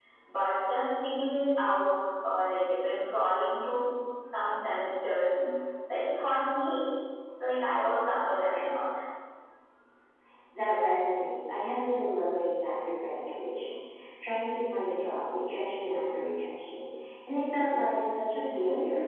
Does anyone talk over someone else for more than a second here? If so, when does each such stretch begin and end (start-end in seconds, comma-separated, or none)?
none